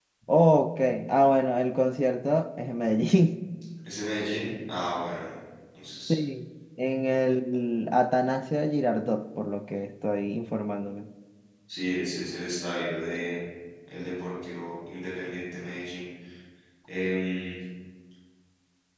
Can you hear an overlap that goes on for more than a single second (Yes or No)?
No